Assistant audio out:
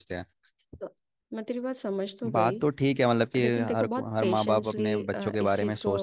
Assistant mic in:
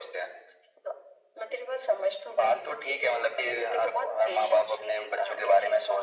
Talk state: echo only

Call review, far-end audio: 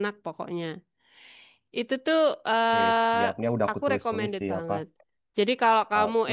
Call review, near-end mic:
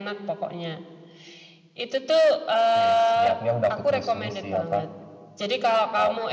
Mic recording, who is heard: echo only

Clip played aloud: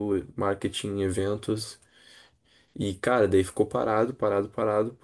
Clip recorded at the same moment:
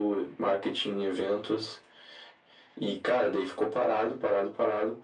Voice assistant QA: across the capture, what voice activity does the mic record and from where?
echo only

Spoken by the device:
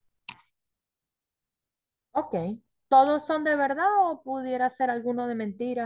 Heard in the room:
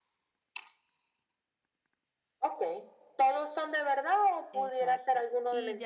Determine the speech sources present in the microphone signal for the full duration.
both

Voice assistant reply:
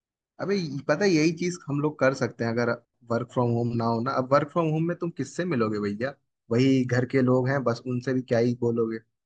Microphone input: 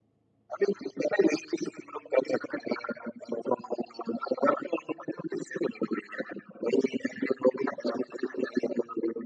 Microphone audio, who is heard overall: echo only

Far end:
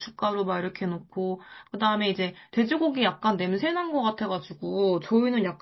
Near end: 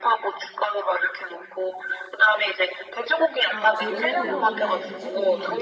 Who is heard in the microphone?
both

